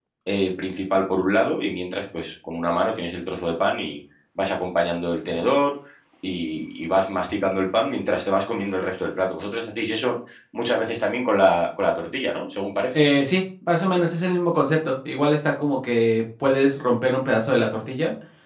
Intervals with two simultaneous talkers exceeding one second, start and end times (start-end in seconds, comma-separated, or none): none